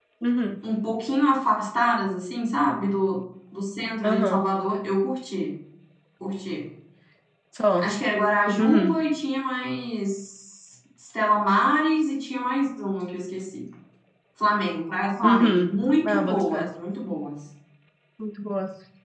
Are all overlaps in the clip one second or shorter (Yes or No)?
No